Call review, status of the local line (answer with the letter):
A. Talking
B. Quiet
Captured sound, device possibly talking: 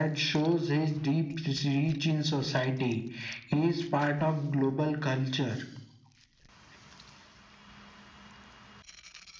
B